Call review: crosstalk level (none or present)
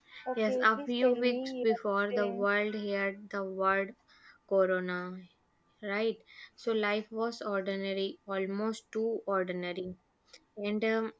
present